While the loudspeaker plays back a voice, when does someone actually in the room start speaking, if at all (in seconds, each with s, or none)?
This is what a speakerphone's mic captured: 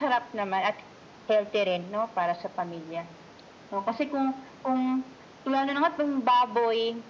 none